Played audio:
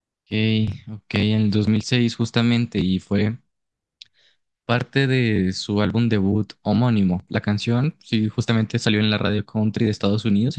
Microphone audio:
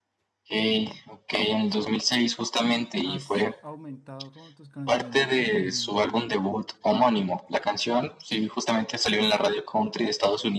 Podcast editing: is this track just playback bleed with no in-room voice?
No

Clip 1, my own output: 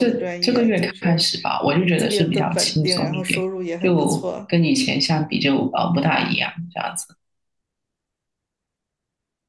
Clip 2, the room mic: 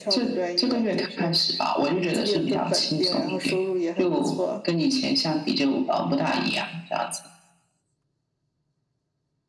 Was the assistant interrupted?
No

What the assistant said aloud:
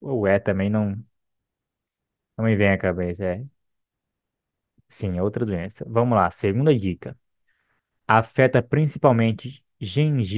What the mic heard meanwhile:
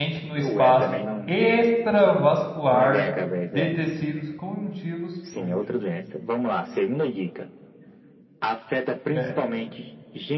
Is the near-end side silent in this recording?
No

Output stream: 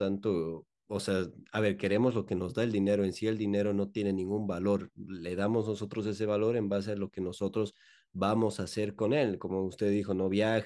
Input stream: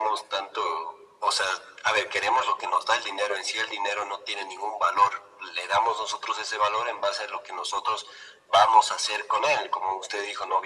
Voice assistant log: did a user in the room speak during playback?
No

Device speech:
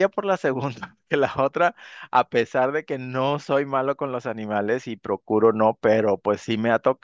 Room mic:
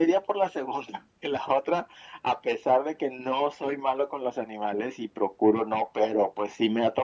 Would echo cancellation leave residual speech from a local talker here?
No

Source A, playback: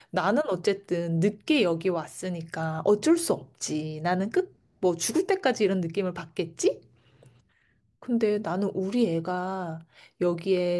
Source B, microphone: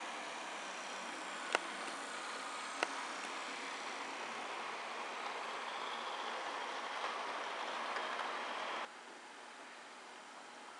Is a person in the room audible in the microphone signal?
No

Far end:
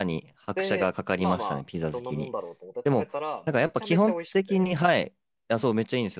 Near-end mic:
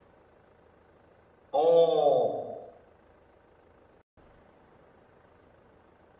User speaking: Yes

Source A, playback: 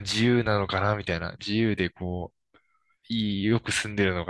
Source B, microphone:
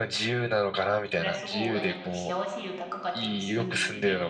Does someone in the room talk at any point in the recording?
Yes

